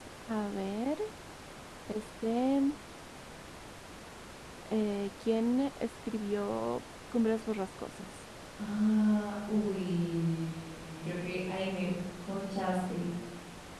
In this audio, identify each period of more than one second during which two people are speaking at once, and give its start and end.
none

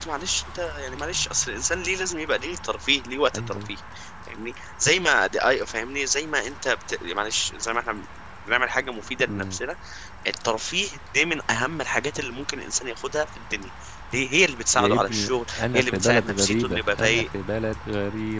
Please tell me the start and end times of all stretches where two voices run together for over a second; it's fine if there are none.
14.7-17.3

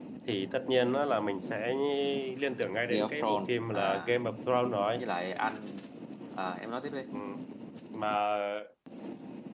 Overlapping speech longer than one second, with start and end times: 2.9-4.1

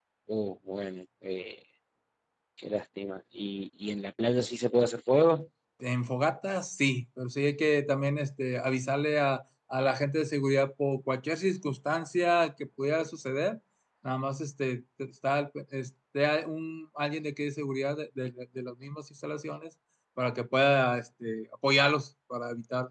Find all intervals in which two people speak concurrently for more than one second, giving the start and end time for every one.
none

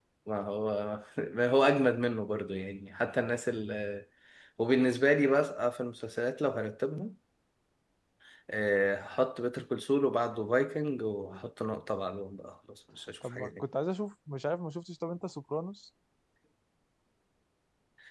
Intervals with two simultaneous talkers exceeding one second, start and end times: none

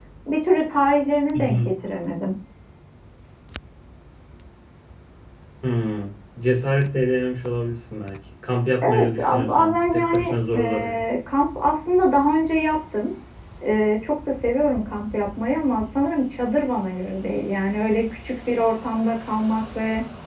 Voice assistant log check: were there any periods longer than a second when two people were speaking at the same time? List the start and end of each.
8.9-11.0

